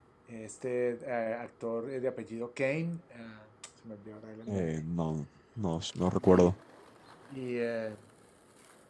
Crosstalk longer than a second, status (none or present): none